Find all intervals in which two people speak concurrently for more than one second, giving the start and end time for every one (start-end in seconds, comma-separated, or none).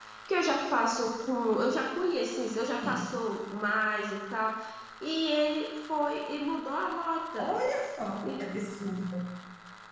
none